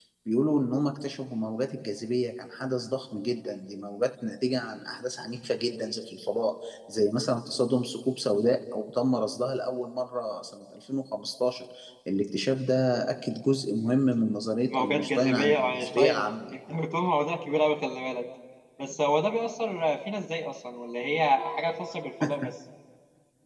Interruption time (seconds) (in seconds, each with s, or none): 14.7 s